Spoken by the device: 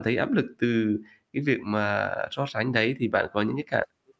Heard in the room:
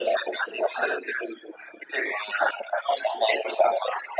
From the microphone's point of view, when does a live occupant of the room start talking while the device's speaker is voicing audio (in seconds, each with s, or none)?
none